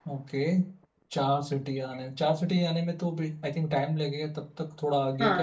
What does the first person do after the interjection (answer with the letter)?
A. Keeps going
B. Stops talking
B